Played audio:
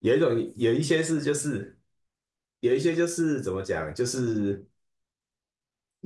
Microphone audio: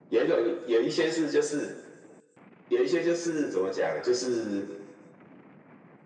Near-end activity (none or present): none